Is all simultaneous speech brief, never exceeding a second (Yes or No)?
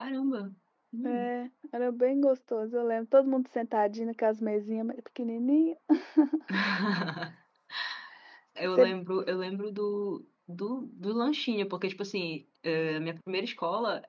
Yes